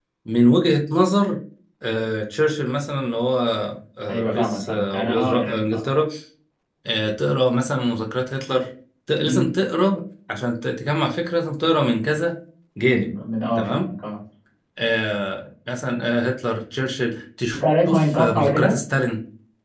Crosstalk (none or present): present